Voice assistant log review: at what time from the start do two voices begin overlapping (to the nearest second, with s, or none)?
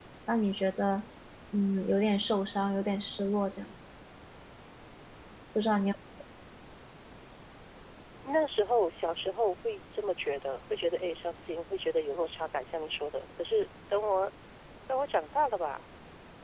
none